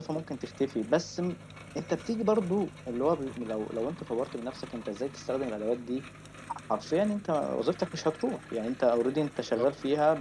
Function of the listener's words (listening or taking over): listening